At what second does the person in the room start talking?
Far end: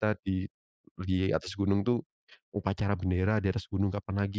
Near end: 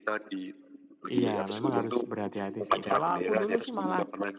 1 s

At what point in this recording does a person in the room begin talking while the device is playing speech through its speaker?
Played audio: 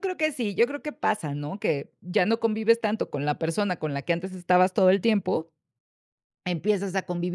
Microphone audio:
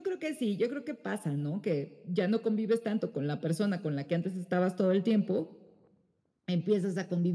none

